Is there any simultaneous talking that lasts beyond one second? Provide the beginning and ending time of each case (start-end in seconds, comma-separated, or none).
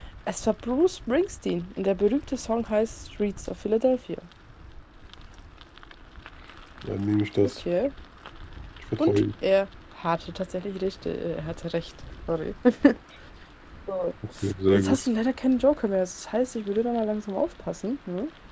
none